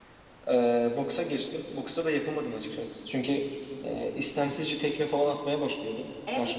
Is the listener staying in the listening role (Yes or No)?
No